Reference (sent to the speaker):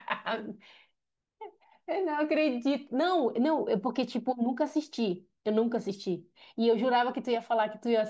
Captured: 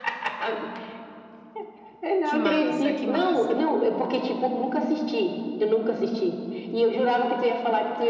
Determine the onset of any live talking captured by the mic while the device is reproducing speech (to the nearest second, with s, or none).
2 s